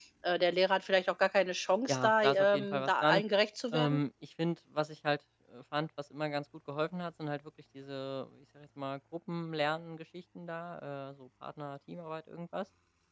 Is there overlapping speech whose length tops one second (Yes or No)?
Yes